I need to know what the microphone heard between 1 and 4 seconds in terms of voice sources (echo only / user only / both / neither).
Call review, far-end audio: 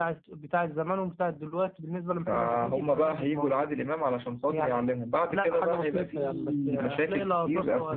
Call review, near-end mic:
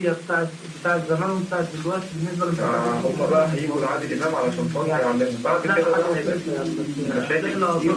both